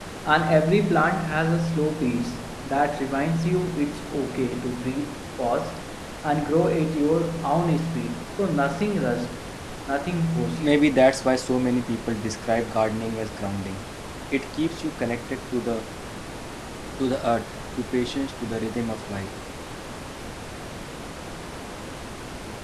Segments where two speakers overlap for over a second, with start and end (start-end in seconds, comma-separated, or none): none